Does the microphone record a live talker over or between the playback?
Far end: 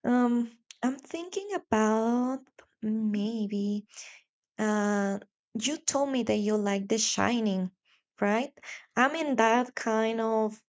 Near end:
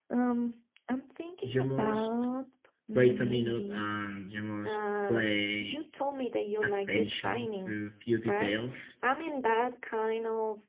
Yes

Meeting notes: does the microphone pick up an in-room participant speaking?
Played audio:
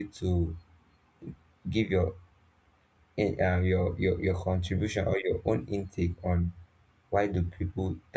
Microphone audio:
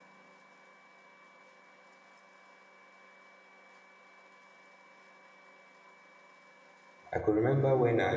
Yes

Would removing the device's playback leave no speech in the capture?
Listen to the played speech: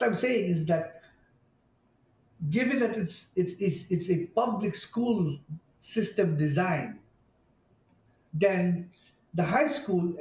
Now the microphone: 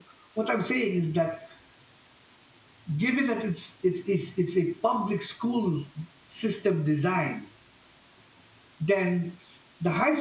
Yes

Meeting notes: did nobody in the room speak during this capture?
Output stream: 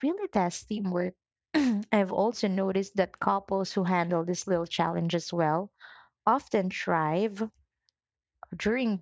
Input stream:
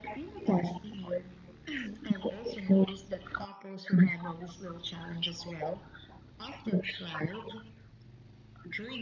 Yes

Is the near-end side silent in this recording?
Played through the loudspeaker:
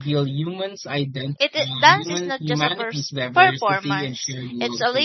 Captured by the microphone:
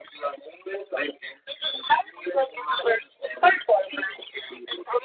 Yes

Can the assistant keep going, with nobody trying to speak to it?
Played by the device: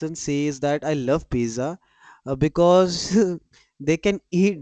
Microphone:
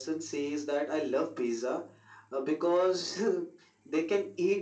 Yes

